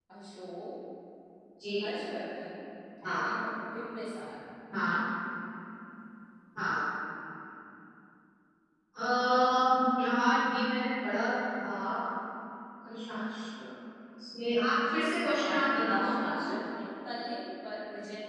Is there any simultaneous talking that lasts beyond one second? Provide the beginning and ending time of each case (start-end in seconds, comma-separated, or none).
14.9-16.5